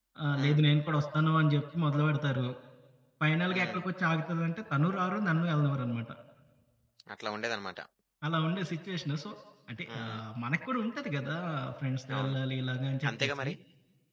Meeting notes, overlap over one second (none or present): none